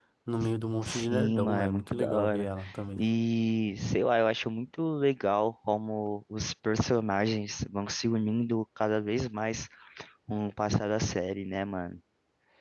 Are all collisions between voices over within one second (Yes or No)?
No